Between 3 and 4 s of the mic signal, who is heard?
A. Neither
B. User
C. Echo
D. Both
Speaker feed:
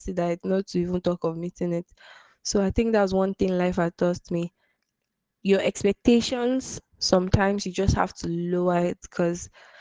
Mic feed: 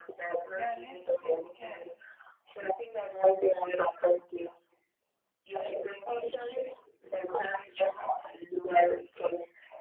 C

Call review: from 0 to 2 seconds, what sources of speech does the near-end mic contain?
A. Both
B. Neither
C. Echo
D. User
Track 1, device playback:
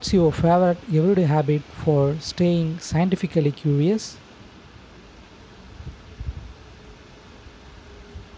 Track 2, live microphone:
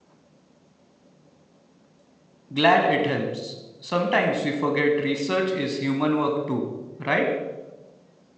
B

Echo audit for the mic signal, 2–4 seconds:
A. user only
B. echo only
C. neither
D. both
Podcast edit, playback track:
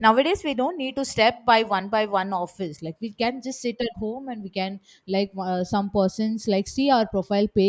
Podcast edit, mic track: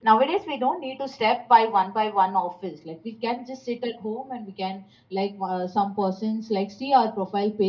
B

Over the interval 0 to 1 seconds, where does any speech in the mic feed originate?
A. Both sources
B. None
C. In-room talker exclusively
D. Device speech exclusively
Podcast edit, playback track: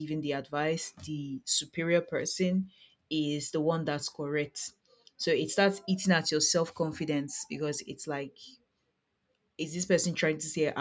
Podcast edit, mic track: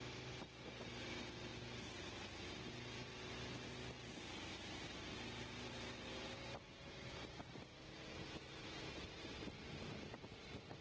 B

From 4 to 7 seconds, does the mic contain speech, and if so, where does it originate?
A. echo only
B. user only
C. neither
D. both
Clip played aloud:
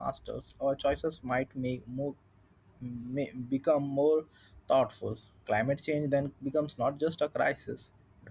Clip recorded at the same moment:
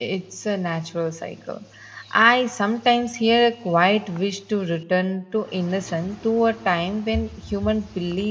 B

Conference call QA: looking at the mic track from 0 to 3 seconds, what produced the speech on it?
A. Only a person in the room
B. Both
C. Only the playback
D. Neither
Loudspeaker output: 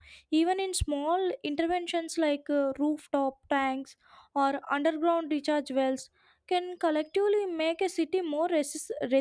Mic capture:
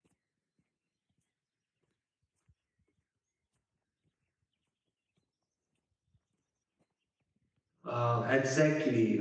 D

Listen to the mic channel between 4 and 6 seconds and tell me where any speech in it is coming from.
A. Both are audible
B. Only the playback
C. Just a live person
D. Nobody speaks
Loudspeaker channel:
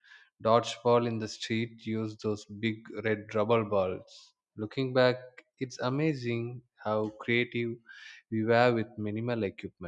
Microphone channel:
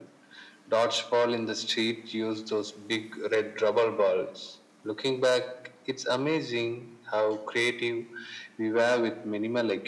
B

